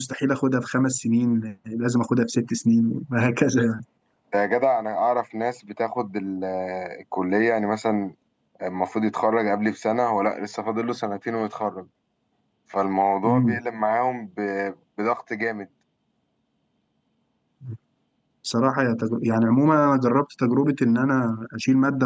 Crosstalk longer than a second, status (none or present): none